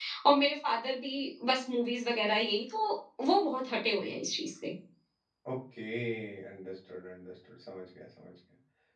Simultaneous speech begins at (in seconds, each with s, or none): none